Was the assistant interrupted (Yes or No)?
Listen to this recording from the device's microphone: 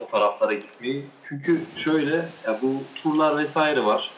No